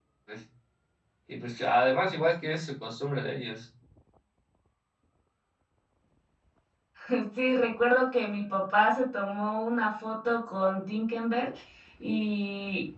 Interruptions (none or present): none